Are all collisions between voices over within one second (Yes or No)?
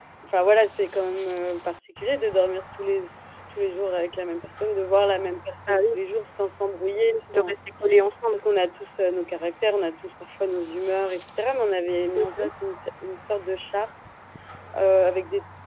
Yes